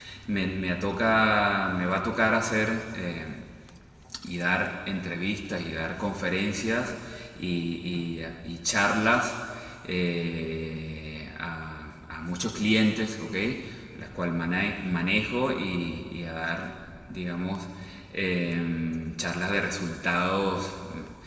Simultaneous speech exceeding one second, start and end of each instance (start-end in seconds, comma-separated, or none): none